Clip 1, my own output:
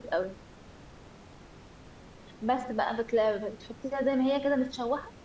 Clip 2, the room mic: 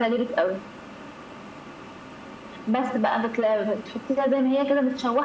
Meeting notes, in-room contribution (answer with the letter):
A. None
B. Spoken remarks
A